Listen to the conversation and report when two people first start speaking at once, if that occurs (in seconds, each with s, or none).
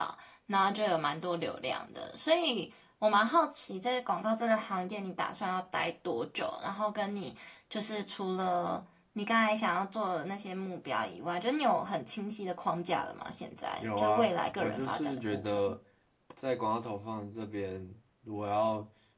13.8 s